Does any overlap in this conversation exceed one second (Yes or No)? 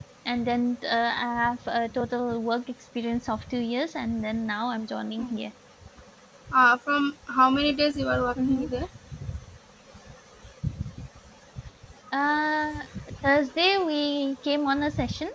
No